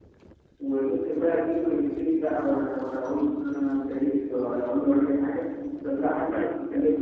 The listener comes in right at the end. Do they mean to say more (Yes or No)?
No